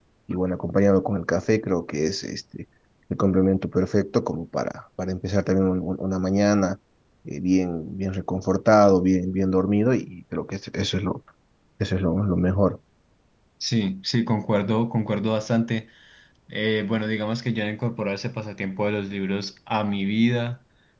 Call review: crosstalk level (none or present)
none